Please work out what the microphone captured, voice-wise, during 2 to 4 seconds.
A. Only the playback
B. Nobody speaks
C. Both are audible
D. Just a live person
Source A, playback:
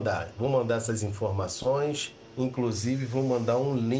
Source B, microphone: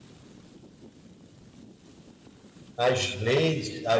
D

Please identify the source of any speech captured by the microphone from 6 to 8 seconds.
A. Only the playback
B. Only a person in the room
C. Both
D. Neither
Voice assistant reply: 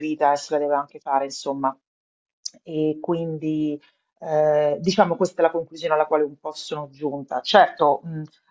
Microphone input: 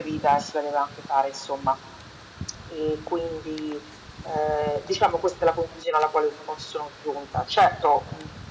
A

